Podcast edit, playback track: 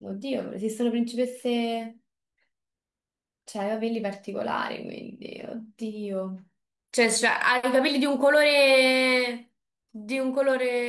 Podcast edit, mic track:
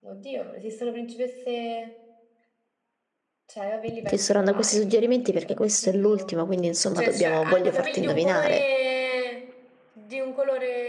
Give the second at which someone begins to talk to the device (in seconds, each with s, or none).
3.9 s